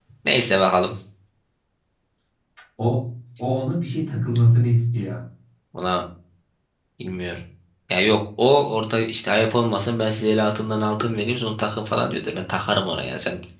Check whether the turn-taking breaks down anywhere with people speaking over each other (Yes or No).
No